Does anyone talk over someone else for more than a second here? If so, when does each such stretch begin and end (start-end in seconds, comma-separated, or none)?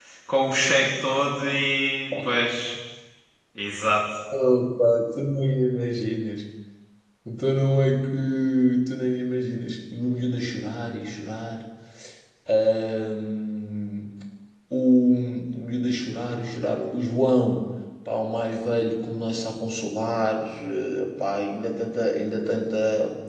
none